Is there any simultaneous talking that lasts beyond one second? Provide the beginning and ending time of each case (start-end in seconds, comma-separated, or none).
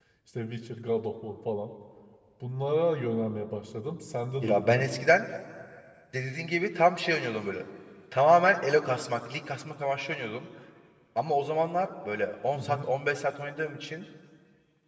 none